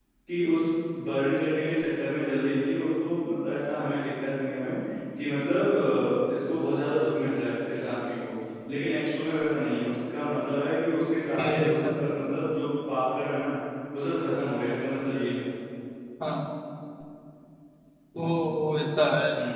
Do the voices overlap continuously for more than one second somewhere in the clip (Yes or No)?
No